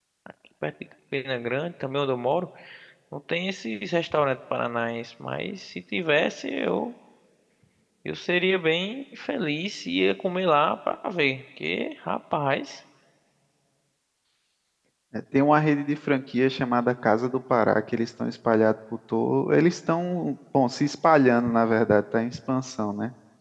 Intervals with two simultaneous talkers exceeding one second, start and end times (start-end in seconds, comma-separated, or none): none